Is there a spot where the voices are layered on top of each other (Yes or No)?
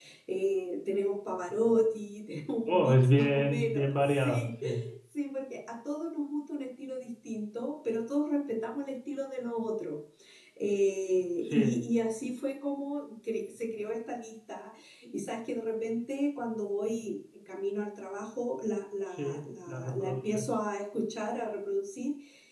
Yes